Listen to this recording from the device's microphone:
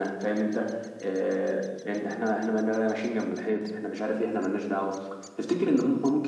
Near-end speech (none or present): none